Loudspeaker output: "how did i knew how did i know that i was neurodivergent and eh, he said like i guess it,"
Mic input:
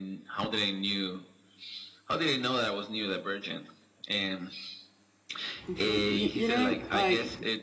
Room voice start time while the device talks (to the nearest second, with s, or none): 6 s